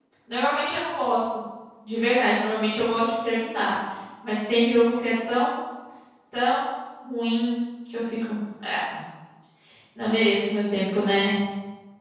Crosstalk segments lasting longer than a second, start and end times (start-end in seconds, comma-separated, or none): none